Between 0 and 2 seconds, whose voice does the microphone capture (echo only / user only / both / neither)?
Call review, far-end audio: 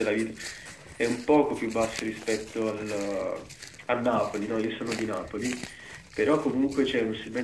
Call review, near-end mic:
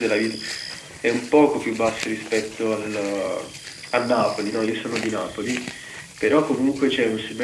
echo only